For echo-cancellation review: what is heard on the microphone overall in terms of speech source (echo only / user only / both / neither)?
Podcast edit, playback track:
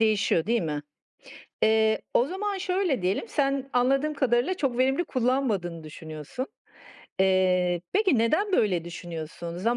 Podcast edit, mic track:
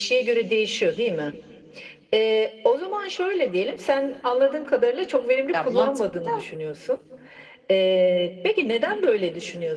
both